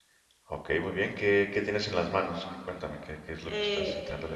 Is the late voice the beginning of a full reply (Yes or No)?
Yes